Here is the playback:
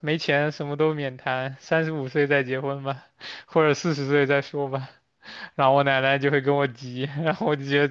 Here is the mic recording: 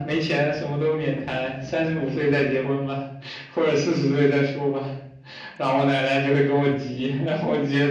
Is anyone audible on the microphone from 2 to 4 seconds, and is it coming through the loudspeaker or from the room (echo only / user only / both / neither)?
echo only